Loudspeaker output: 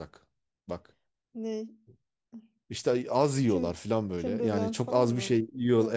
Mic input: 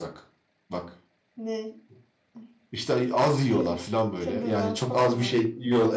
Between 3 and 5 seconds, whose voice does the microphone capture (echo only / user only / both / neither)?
echo only